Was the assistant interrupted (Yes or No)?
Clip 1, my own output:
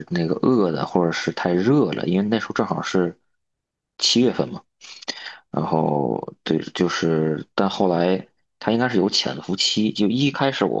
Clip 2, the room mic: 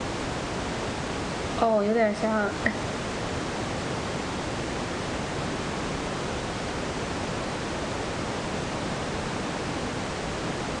Yes